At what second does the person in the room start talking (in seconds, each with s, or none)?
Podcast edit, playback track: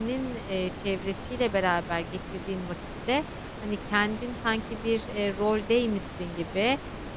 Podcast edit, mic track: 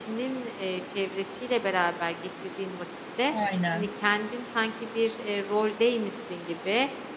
3.3 s